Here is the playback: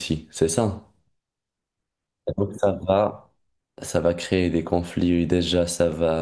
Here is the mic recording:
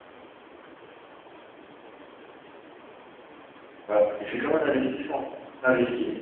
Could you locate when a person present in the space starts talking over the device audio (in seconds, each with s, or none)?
3.9 s